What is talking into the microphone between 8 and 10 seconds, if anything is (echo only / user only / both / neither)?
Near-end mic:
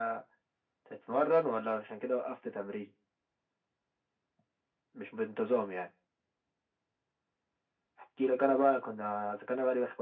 echo only